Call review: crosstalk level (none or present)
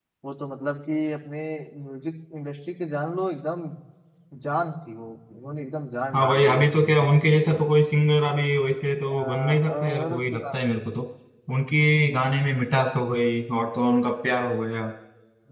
present